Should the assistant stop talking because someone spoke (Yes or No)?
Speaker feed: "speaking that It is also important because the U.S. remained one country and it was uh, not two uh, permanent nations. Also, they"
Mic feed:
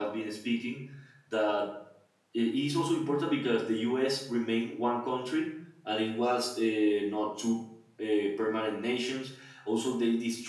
No